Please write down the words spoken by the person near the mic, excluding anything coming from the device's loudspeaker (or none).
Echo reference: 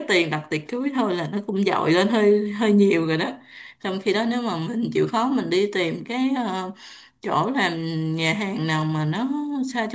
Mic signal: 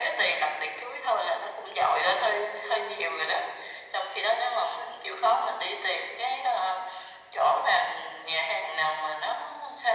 none